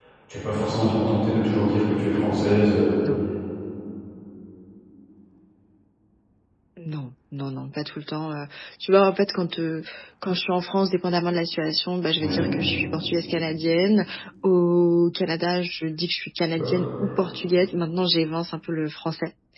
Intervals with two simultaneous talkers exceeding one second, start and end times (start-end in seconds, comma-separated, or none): none